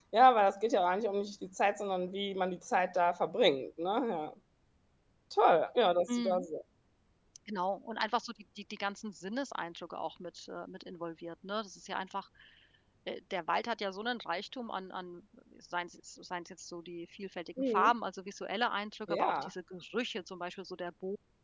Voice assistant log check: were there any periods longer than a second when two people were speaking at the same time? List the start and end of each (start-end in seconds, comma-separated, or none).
none